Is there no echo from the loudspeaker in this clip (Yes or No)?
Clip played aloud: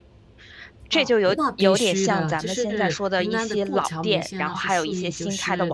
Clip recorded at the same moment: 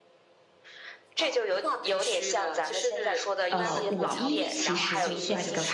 No